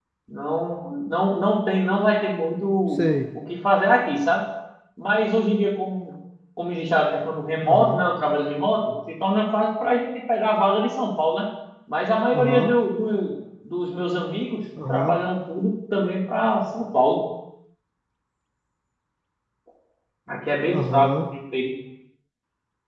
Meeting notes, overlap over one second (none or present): none